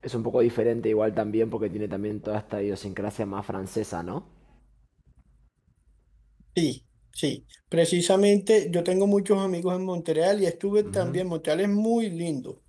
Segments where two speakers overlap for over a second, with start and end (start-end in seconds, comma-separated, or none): none